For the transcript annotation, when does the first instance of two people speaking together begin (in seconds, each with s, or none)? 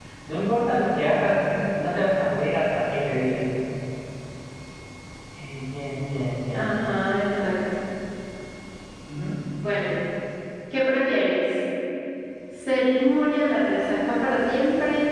none